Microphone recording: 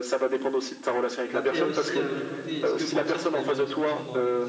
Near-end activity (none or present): present